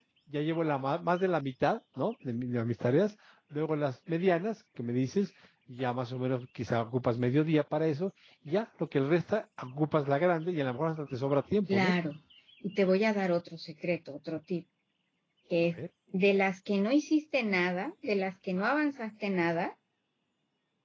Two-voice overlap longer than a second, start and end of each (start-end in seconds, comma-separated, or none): none